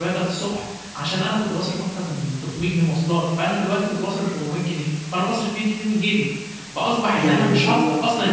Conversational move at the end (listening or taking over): listening